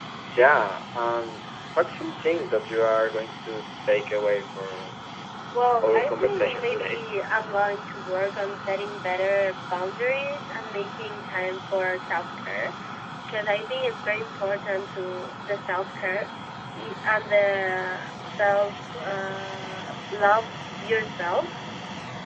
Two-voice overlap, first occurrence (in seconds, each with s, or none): 5.8 s